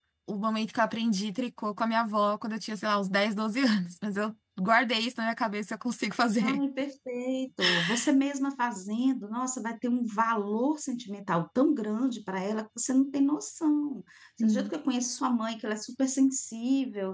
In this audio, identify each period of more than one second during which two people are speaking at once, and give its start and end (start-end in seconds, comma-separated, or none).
none